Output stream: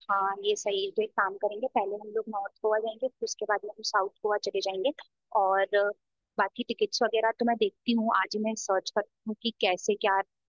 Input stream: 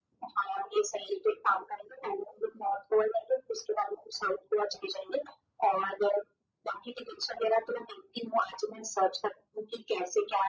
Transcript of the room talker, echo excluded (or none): none